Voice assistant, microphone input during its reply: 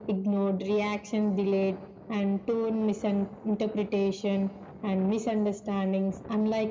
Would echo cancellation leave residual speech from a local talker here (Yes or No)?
No